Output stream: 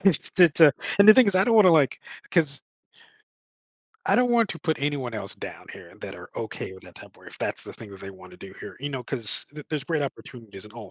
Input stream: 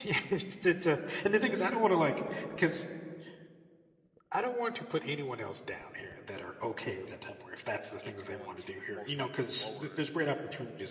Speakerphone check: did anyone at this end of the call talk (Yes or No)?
Yes